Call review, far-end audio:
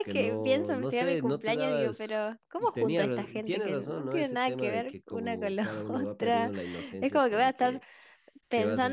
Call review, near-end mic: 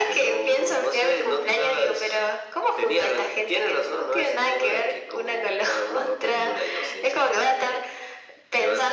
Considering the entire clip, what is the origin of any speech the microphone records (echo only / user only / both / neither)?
echo only